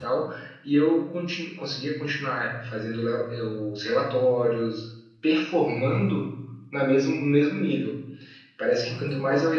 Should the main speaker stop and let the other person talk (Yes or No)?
No